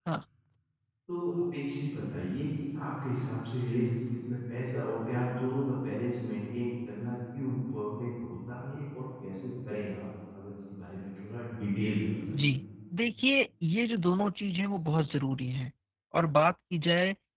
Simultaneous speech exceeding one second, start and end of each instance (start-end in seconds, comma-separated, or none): none